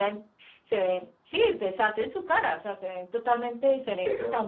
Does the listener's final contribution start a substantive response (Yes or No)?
No